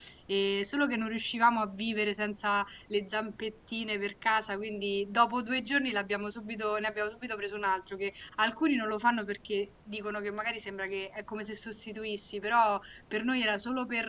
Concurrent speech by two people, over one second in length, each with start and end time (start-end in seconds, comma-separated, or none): none